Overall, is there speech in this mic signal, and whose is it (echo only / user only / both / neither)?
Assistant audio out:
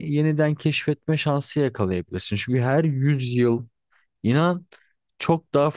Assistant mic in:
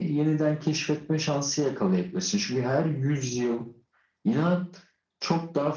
echo only